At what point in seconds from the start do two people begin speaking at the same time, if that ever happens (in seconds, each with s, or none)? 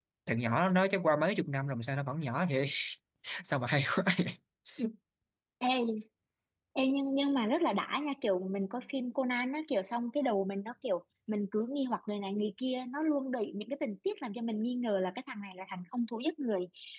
none